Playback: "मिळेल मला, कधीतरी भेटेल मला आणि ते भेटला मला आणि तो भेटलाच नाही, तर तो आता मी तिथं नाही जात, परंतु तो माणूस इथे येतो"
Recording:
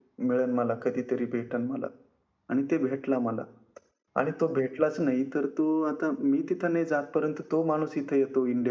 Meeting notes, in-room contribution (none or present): none